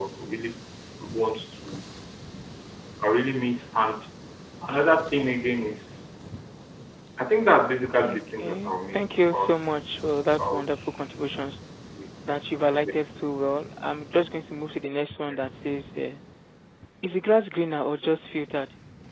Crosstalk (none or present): present